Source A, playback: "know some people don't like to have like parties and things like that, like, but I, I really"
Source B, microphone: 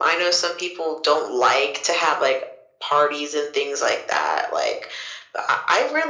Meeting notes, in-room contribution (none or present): none